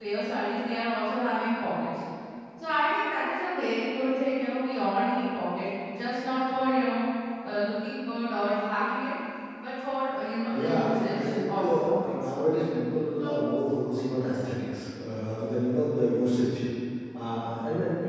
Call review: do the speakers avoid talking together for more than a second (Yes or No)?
No